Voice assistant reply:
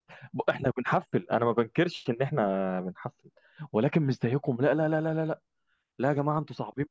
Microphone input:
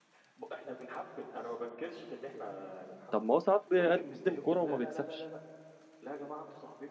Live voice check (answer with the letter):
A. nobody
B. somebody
B